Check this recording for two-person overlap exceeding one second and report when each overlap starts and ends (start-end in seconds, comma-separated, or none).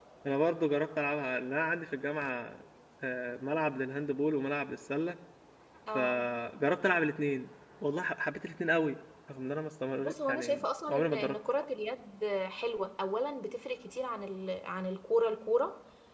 10.0-11.3